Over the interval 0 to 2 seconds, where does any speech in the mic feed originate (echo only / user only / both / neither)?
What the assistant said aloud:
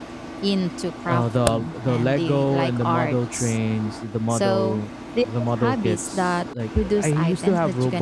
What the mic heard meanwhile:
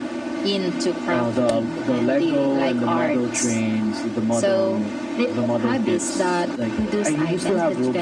echo only